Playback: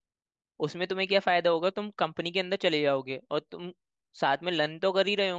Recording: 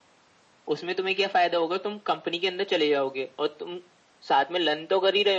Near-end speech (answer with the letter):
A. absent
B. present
A